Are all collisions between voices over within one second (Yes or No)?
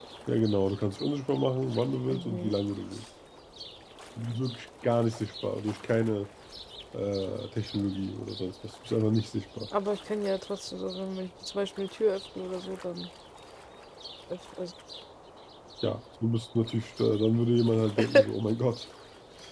Yes